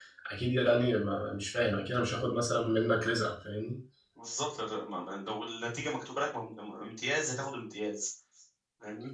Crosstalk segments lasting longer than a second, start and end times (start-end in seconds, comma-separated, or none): none